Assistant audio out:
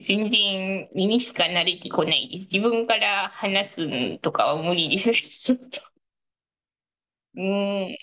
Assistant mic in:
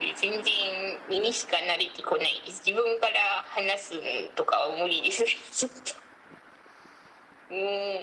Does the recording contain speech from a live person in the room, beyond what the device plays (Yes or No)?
No